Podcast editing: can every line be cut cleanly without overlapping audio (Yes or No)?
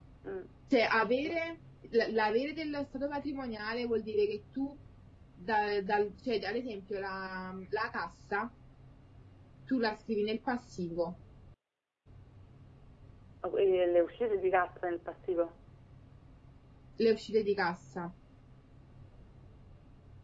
Yes